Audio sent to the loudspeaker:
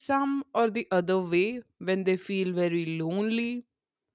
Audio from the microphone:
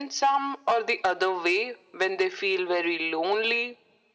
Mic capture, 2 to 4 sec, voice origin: echo only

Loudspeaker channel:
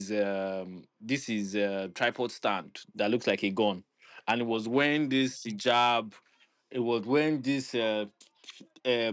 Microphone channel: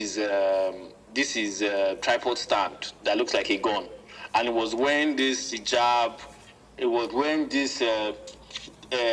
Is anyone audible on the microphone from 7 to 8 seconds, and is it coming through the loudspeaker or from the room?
echo only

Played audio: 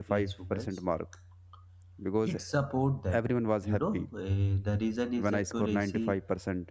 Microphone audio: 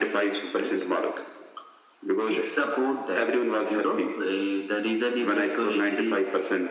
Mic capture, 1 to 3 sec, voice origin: echo only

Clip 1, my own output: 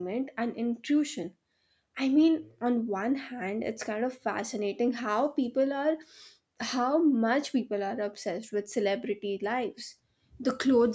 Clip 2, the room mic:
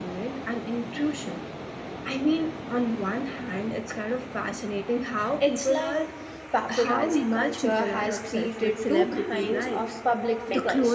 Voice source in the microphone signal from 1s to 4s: echo only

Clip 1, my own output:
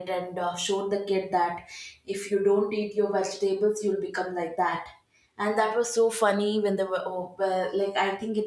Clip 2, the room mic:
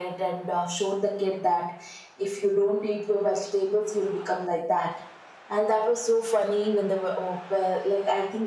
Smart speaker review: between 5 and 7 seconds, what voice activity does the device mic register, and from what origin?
echo only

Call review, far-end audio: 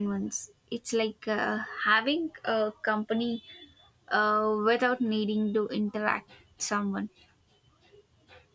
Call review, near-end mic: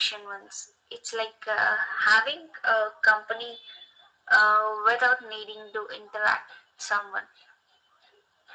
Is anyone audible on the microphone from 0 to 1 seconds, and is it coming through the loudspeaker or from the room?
echo only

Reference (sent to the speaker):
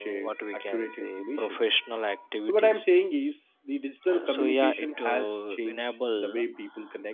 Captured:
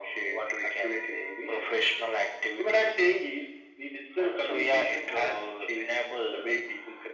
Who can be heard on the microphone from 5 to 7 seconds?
echo only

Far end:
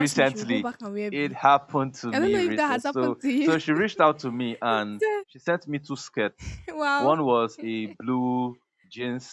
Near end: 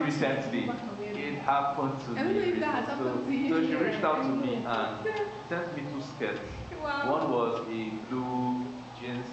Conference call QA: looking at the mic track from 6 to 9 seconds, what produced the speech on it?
echo only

